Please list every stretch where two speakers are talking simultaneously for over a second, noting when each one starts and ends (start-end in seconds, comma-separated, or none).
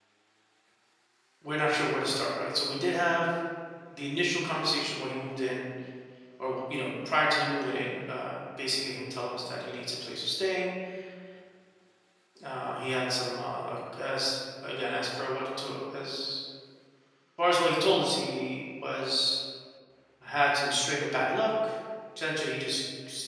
none